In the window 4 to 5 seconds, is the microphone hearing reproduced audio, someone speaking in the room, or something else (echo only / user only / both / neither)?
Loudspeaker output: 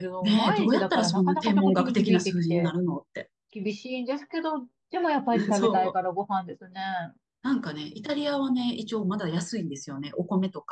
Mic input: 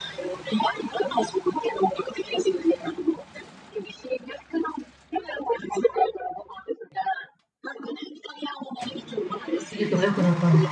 echo only